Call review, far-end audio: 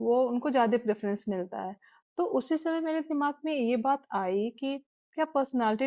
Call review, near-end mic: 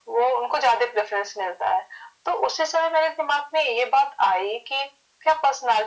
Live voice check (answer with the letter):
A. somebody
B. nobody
B